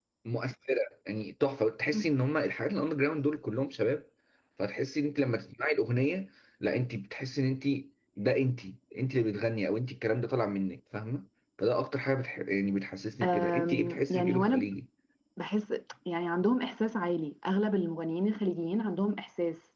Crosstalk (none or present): present